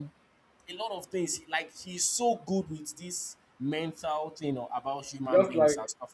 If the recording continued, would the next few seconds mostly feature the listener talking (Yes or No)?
Yes